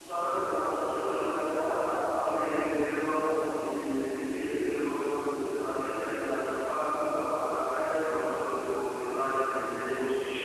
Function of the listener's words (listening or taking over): taking over